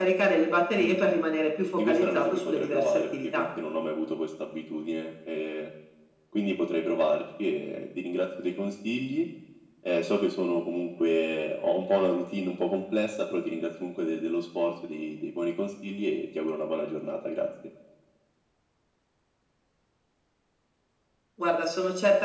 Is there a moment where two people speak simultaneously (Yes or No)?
Yes